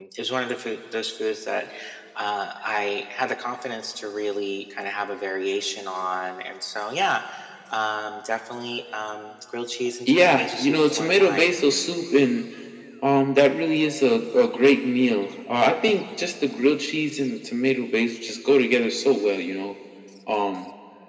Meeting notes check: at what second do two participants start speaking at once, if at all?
10.1 s

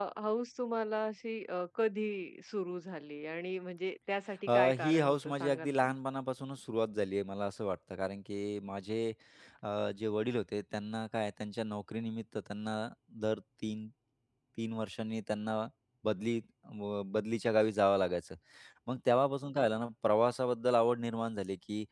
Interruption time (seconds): 4.5 s

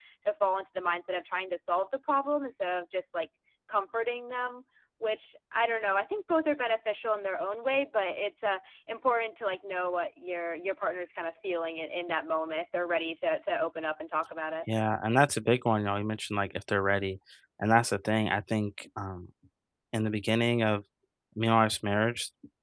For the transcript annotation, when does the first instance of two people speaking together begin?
none

